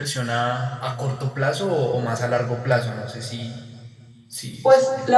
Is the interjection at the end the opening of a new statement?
Yes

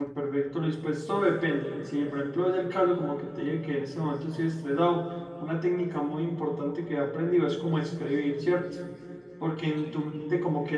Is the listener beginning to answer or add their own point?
No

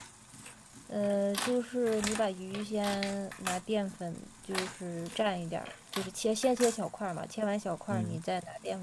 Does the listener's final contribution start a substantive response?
No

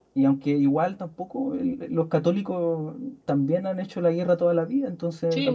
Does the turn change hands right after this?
Yes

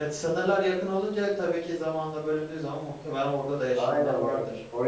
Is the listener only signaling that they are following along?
No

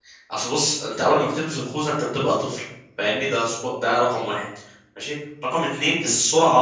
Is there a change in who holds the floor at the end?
No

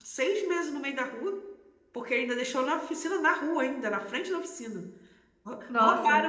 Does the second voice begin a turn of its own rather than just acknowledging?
No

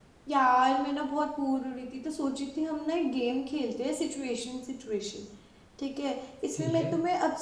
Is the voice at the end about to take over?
No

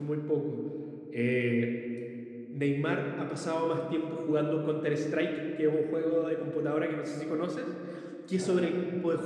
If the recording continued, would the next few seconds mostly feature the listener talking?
No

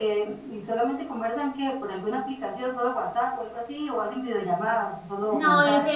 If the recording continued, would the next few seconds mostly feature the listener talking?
Yes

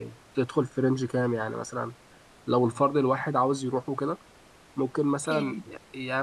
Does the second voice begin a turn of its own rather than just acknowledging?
No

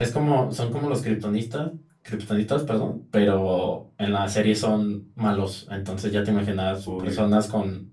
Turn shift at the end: No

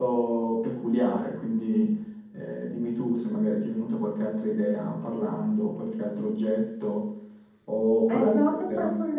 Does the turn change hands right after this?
Yes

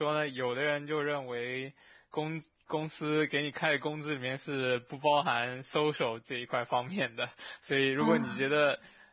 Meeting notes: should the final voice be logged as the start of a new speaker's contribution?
No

